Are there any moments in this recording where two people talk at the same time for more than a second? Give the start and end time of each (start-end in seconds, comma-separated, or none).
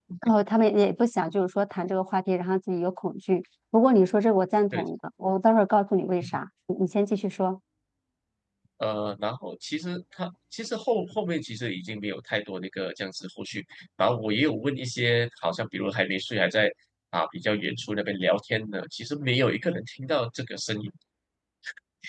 none